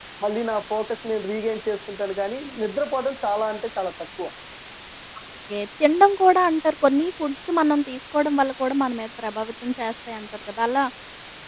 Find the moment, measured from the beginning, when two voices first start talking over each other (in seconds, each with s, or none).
none